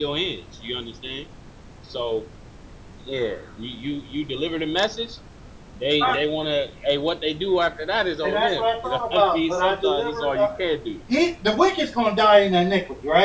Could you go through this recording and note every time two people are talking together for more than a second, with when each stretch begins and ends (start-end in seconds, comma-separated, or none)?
8.2-10.5